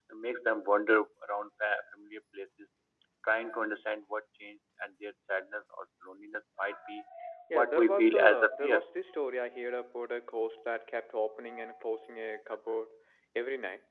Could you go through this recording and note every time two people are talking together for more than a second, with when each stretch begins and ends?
7.6-8.8

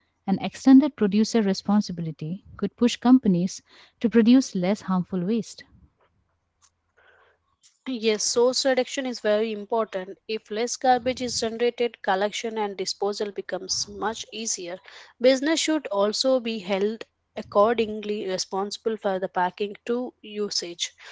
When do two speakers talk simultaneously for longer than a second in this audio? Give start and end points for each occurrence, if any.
none

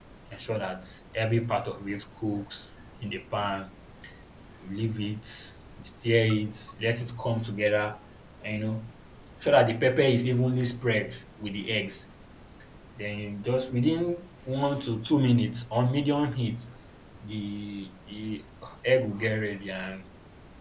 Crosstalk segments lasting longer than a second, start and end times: none

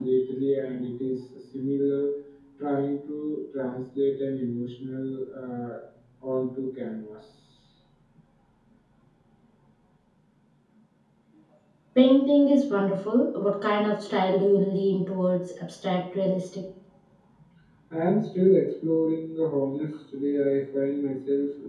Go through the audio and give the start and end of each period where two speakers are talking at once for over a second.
none

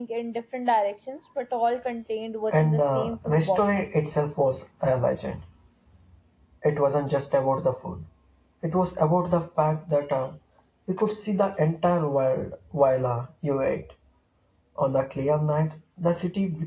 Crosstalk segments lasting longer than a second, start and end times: 2.5-3.9

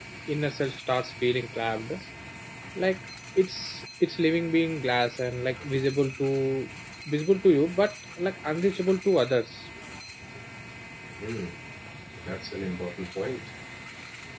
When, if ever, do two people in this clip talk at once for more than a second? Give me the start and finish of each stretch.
none

